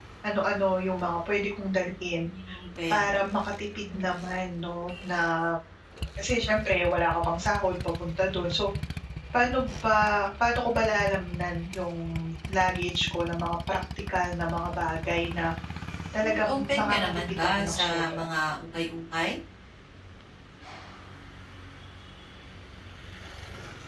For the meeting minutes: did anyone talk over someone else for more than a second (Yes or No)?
Yes